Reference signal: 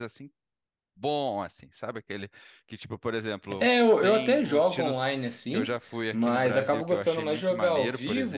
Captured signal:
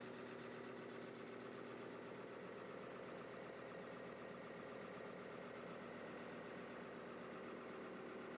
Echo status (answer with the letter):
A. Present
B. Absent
B